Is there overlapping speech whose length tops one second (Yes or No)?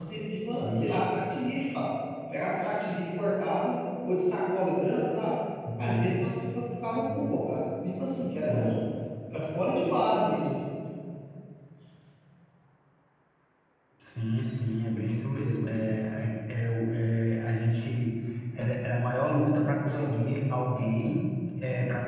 No